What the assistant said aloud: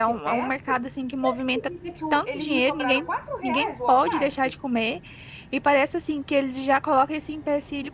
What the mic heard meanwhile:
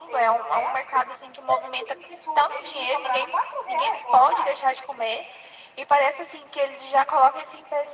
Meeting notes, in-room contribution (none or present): none